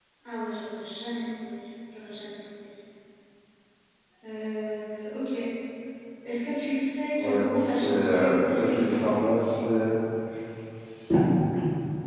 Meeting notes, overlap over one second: present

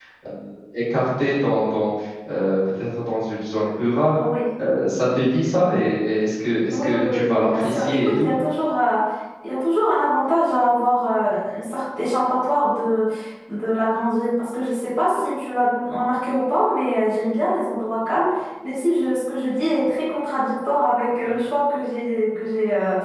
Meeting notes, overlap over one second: present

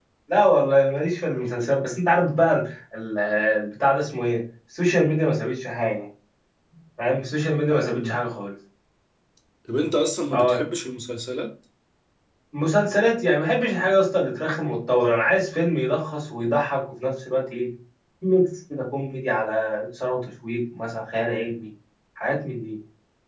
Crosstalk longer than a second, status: none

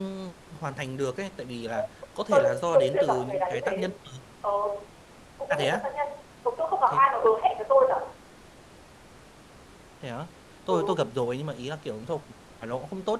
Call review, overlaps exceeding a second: present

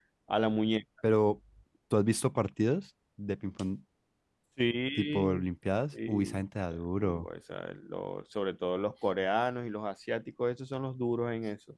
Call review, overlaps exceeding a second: none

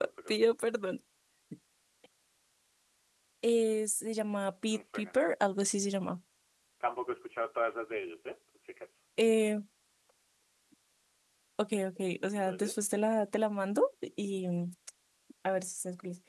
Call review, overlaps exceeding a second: none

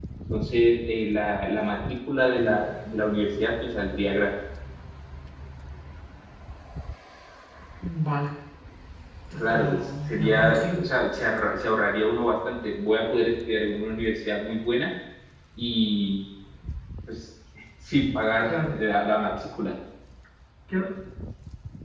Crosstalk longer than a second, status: present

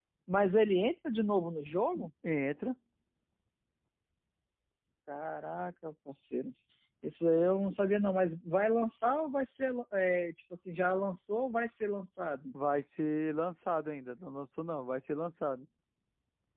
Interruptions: none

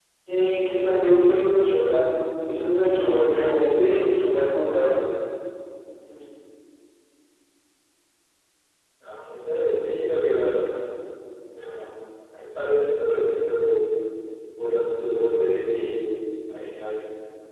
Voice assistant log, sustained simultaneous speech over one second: none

